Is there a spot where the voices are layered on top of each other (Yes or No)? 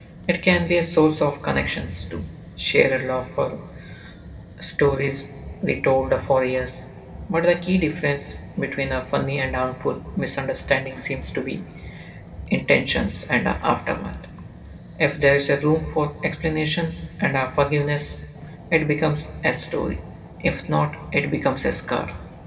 No